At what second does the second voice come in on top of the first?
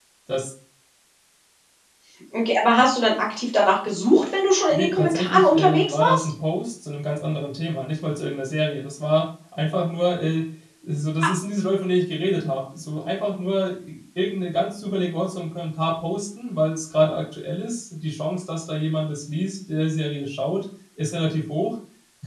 4.7 s

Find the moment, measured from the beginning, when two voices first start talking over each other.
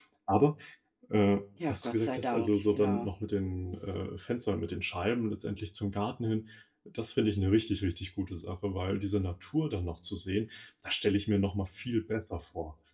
1.7 s

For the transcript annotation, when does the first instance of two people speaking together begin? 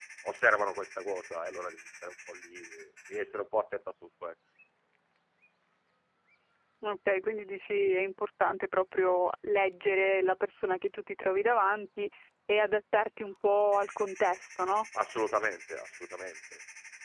none

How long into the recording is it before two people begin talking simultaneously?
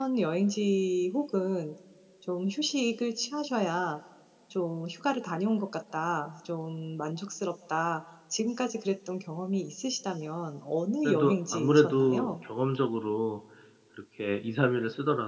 11.0 s

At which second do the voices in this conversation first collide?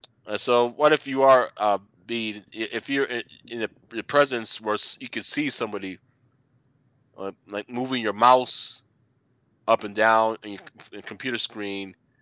none

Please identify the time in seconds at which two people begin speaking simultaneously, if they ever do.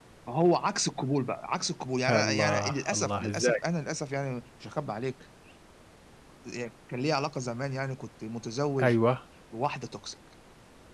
2.1 s

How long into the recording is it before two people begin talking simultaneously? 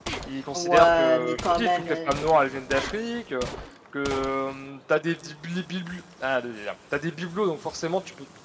0.5 s

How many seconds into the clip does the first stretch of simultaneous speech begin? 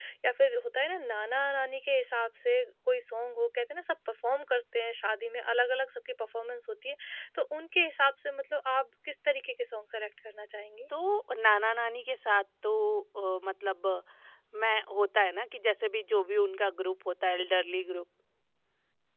none

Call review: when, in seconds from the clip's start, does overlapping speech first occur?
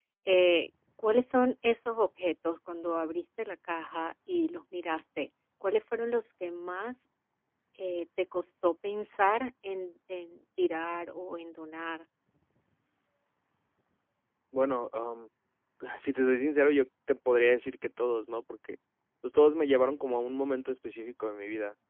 none

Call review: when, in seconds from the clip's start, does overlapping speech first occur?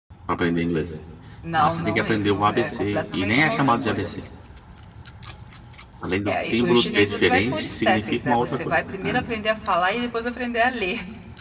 1.5 s

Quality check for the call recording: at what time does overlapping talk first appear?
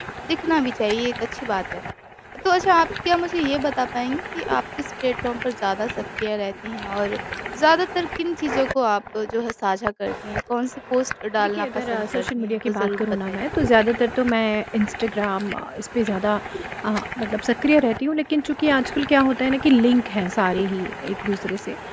11.4 s

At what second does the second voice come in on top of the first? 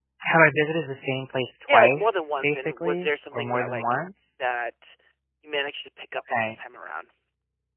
1.7 s

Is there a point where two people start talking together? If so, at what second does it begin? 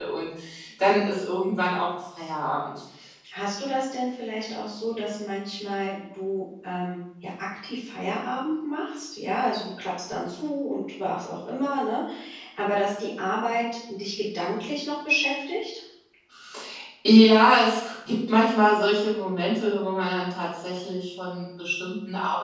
none

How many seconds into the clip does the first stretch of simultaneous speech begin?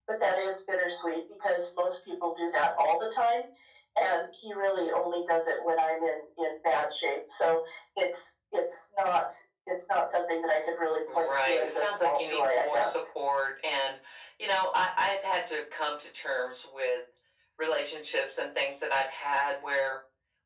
11.1 s

